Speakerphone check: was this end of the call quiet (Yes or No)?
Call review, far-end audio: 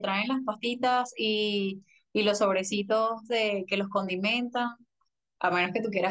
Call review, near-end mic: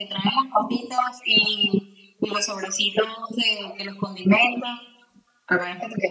Yes